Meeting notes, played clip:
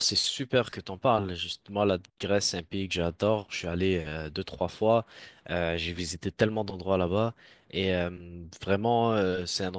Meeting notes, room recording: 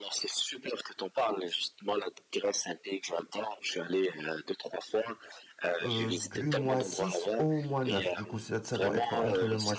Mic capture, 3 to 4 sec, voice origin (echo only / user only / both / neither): echo only